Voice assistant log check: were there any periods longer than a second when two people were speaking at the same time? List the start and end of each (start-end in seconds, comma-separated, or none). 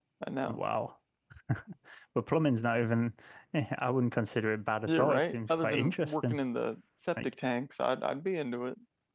4.9-6.4